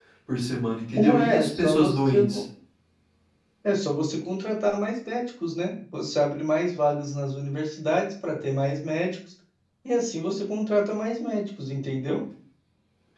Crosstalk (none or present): present